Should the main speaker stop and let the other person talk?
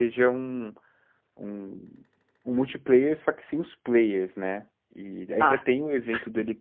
No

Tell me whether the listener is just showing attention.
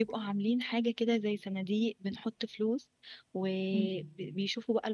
Yes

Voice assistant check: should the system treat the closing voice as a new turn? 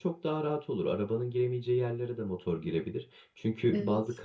No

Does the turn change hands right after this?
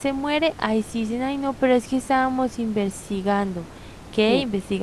No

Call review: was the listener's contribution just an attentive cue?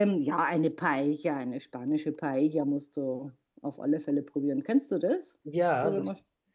No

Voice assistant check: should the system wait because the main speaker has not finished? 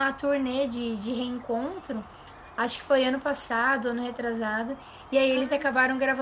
Yes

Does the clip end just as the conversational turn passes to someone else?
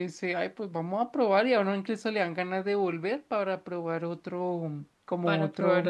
Yes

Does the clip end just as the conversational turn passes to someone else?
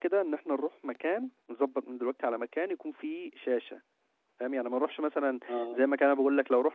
No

